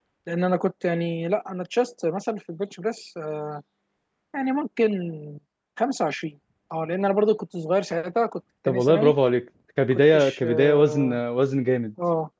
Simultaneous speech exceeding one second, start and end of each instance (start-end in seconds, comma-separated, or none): 9.9-11.2